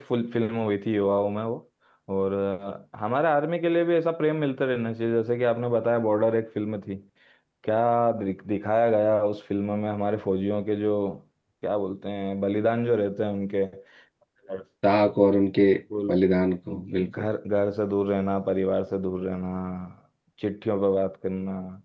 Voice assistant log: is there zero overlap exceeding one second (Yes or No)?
Yes